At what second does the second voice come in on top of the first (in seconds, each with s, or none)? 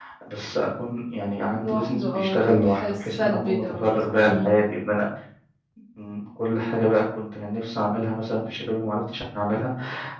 1.6 s